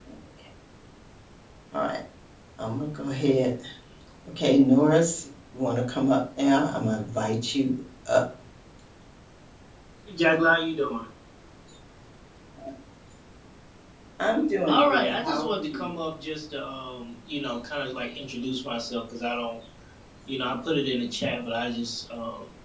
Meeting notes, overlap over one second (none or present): present